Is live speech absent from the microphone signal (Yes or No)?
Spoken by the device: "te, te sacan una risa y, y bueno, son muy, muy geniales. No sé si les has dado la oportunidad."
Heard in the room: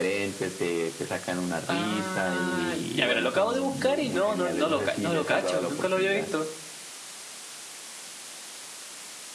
No